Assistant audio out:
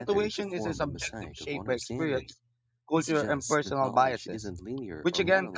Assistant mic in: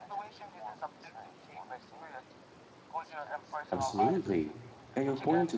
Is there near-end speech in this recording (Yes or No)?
Yes